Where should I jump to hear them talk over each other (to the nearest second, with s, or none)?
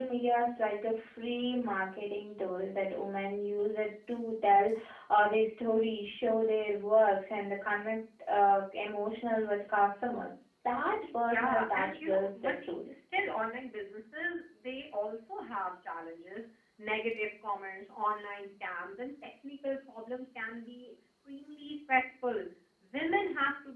11 s